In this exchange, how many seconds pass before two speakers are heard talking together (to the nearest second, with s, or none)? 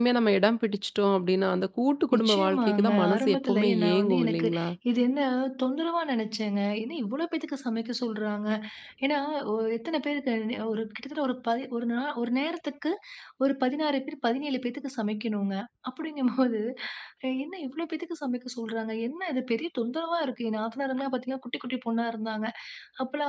2 s